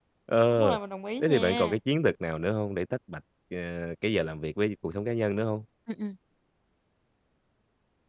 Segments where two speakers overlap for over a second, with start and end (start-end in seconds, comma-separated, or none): none